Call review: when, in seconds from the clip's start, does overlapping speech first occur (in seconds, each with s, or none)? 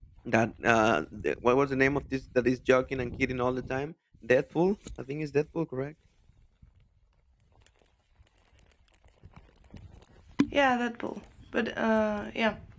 none